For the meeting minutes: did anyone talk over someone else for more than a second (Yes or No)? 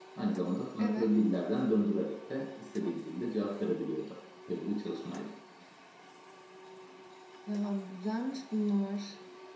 No